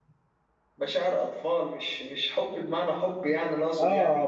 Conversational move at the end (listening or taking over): taking over